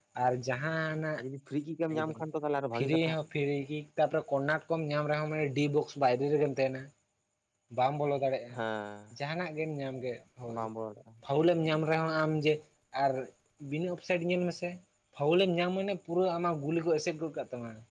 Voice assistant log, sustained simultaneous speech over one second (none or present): none